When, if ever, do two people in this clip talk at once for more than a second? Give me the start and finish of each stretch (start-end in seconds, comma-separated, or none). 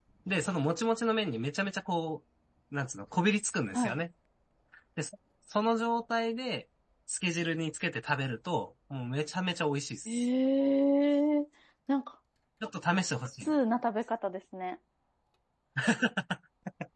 none